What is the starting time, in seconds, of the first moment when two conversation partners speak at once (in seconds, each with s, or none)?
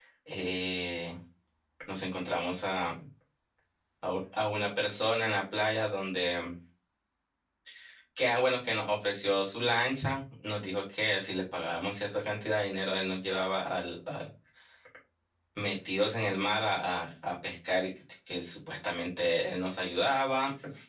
none